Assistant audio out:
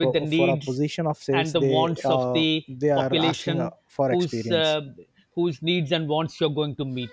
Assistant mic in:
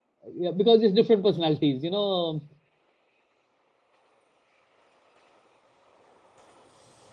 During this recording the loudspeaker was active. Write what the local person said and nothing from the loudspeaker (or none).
Yeah, because it's different personalities. You know,